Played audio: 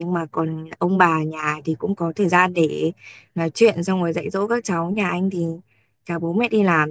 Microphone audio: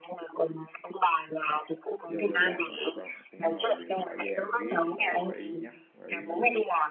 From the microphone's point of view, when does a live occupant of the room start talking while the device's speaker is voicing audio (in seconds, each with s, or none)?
2.1 s